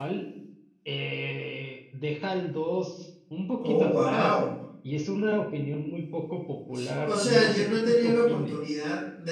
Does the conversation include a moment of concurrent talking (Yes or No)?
Yes